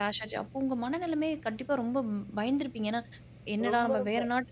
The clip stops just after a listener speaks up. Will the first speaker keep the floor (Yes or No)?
Yes